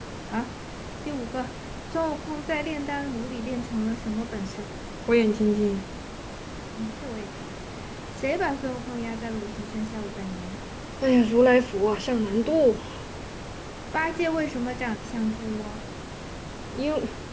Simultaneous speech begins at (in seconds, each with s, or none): none